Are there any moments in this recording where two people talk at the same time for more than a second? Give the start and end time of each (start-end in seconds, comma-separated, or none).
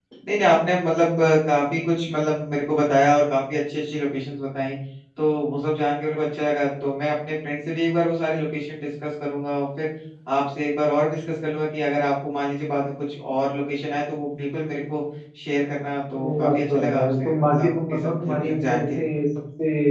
16.2-19.0